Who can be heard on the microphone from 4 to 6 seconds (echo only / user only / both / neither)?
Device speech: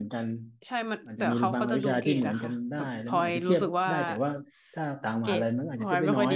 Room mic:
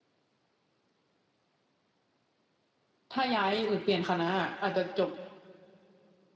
user only